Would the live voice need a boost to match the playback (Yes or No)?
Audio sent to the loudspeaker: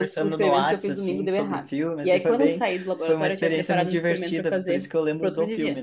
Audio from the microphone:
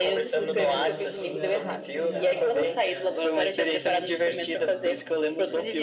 Yes